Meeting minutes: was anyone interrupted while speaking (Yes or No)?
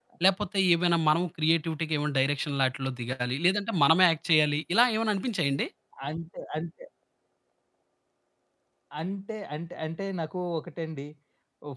No